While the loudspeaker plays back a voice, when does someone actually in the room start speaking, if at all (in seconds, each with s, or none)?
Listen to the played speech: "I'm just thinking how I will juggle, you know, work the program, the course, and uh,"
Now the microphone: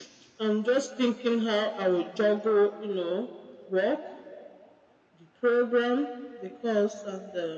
none